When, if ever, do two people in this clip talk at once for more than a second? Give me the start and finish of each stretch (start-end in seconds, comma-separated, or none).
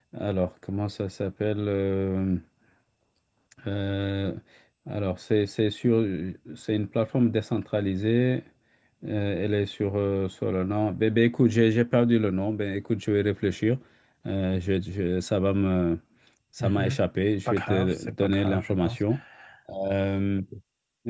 17.5-19.0